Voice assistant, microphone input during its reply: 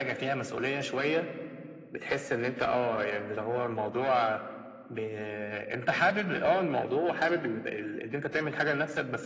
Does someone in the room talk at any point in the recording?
No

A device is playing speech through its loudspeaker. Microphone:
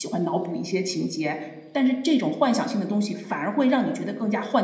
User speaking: Yes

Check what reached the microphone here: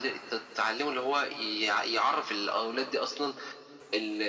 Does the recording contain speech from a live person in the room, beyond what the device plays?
No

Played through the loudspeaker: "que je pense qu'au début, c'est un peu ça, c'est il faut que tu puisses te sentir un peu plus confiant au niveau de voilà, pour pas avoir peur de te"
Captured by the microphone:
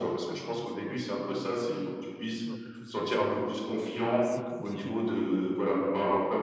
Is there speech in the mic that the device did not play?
Yes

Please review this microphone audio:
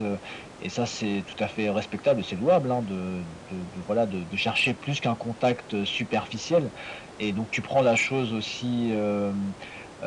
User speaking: No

